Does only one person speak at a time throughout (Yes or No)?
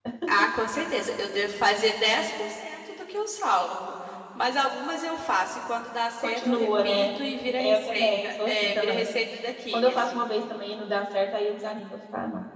No